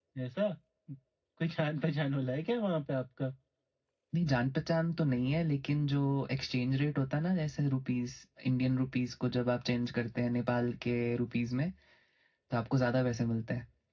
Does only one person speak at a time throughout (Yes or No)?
Yes